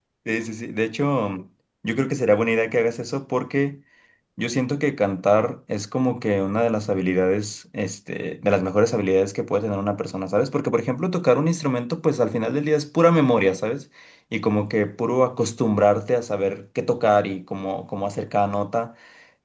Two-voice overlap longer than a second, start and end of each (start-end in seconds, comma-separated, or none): none